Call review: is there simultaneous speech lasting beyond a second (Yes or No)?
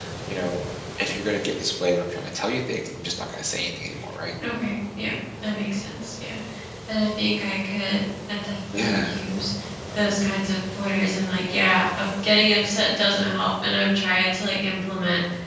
No